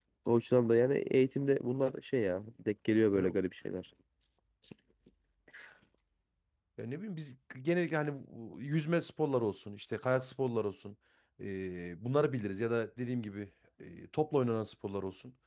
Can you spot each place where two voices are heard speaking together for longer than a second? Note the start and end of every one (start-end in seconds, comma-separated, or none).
none